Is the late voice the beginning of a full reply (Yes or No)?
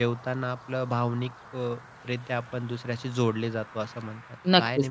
Yes